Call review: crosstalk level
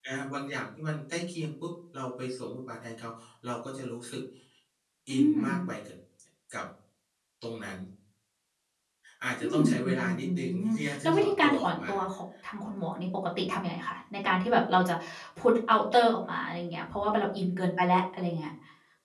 present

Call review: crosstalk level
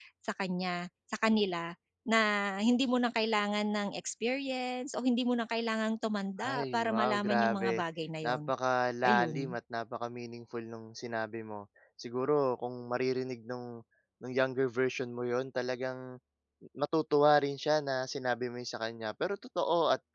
present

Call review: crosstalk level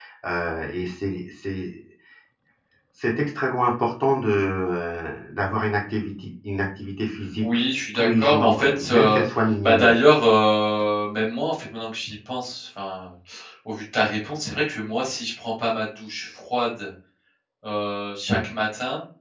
present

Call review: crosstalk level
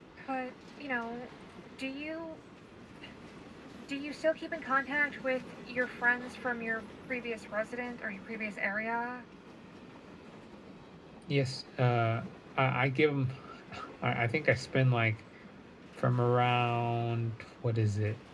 none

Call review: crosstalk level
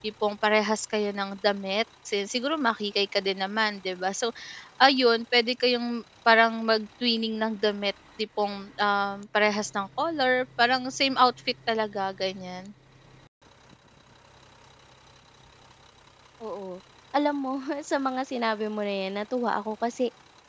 none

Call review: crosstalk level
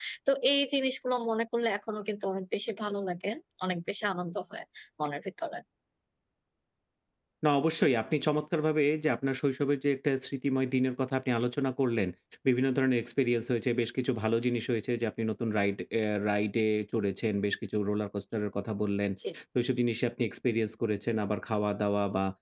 none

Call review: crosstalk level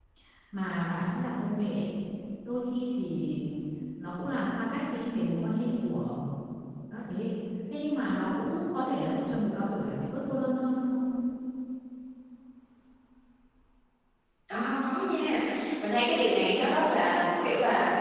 none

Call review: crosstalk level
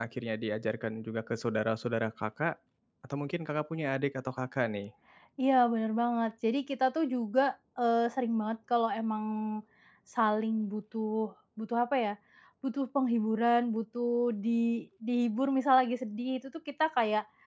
none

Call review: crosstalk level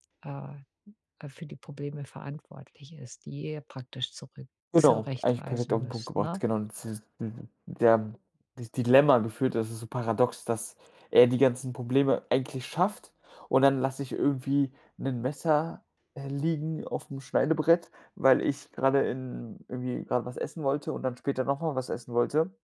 present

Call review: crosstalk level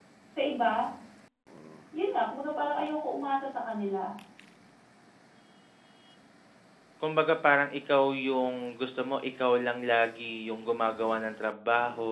none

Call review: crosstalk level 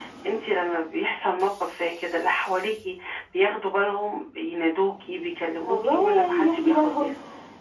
present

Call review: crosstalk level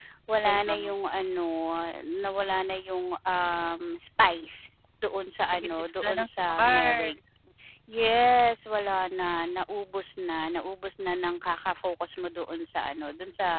present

